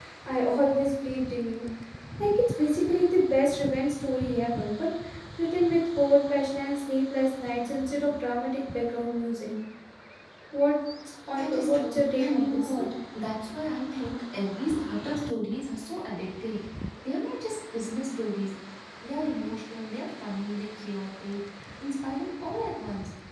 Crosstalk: present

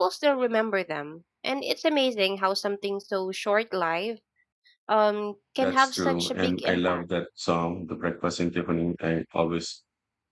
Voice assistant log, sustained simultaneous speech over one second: present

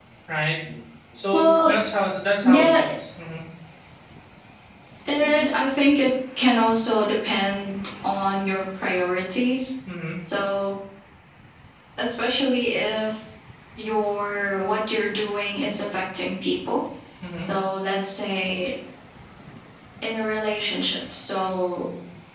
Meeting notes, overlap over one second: none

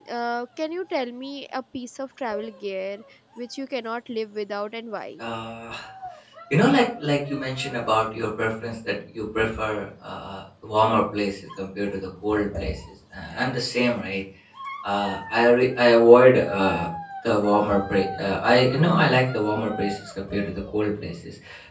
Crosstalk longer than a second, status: none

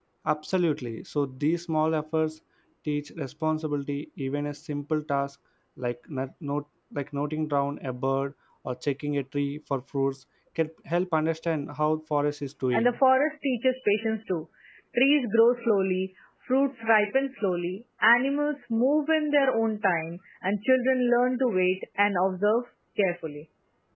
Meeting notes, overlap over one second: none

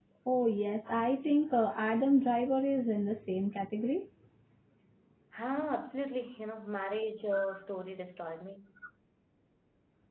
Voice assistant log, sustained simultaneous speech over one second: none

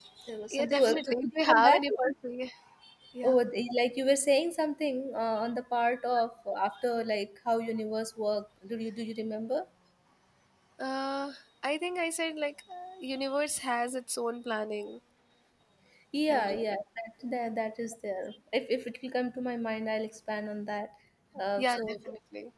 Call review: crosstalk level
present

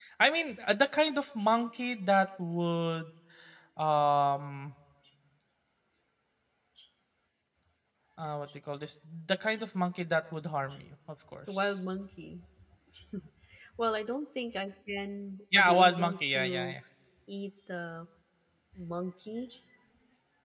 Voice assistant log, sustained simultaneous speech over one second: present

